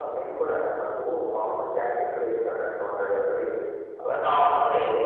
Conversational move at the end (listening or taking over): listening